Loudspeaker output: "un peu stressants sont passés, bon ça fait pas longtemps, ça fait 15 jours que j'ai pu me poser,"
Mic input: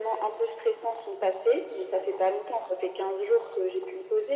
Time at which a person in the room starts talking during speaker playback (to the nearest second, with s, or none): none